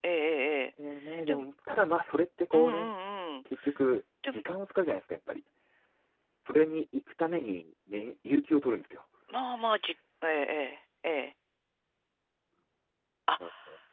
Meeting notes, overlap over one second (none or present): none